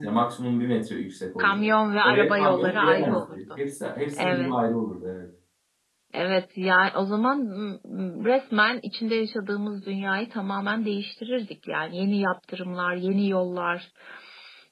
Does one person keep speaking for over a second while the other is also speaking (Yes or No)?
Yes